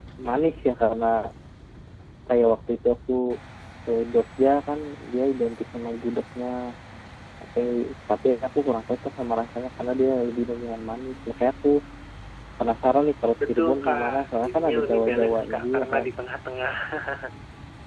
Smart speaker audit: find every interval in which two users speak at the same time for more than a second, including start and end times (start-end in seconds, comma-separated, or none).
13.5-16.0